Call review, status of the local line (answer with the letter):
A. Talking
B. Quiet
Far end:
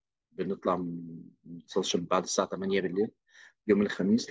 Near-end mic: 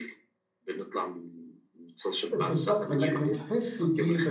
A